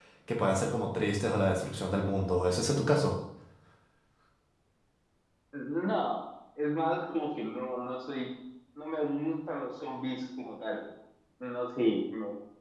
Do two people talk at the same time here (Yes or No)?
No